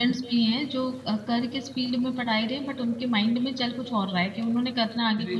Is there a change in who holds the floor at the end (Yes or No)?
Yes